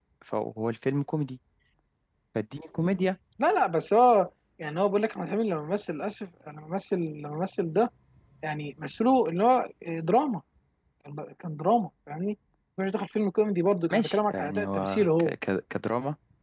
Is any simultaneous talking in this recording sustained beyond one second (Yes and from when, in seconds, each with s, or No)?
Yes, from 13.9 s